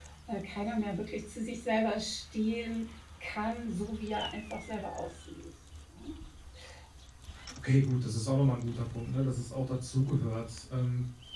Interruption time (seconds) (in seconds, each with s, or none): none